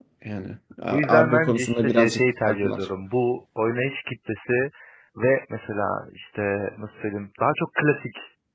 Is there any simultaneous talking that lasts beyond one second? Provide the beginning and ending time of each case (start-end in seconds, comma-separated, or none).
1.1-2.9